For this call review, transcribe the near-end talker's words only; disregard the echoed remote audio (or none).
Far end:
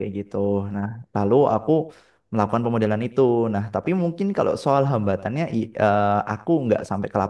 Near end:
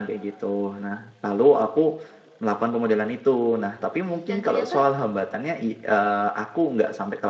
dan ternyata